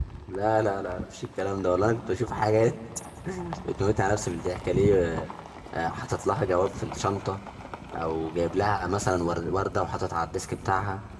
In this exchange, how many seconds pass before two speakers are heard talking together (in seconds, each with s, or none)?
none